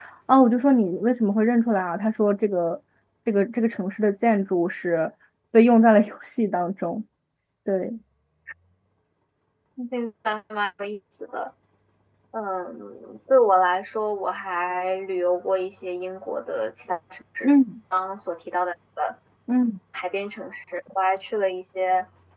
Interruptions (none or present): none